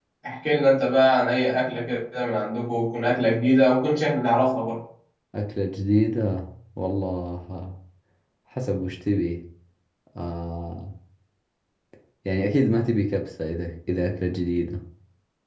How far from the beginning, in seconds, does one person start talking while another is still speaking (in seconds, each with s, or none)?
none